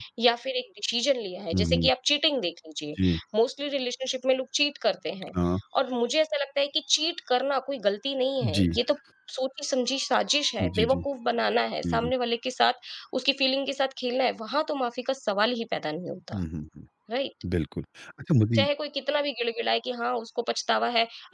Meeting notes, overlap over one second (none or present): none